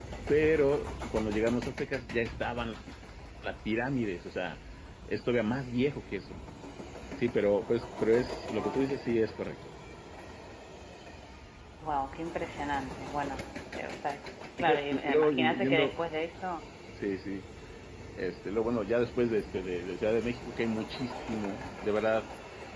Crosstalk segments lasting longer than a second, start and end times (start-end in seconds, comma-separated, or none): 14.6-16.0